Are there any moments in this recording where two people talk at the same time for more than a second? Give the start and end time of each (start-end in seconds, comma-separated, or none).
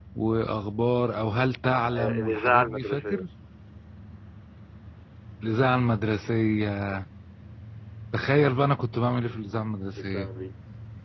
1.9-3.2